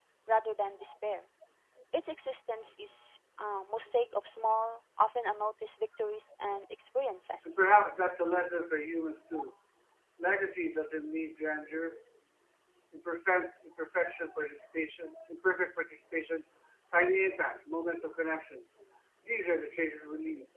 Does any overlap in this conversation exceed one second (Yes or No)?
No